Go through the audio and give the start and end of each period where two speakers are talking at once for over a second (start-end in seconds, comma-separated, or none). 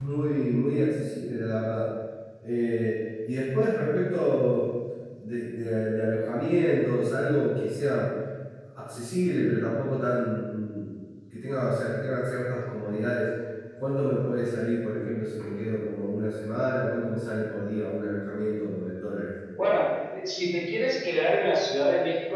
none